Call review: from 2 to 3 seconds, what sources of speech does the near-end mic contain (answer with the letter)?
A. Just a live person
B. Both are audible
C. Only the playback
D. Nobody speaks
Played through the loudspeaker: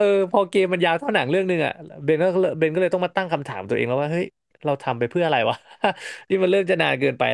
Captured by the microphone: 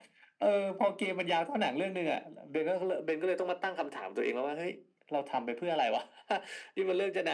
C